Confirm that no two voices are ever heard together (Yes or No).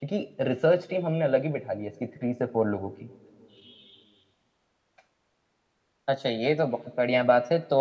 Yes